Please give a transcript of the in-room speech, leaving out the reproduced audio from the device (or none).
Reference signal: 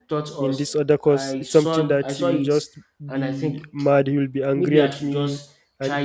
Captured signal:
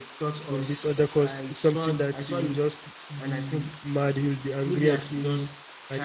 none